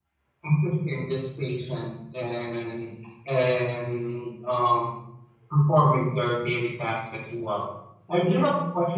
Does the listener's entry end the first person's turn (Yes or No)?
No